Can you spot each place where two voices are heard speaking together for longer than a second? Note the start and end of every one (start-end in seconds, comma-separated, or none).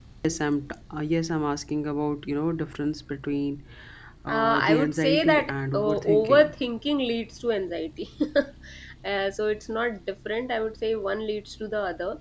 4.3-6.4